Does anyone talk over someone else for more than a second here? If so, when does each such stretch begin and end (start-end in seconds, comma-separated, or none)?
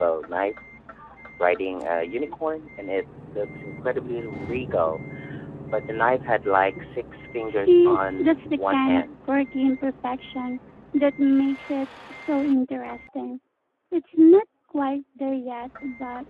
7.5-9.1